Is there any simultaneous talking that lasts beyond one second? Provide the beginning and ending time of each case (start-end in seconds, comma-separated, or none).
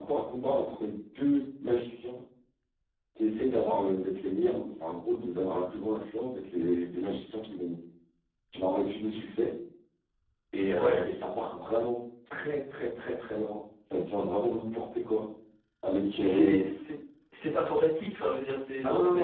none